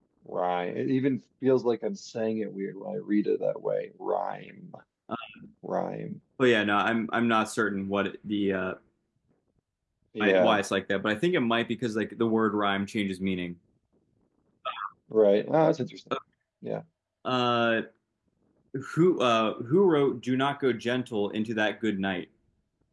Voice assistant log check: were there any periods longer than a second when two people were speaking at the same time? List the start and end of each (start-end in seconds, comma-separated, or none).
none